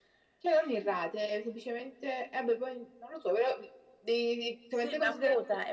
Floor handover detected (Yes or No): Yes